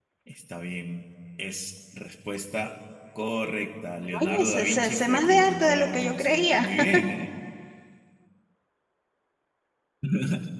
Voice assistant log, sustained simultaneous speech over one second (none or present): present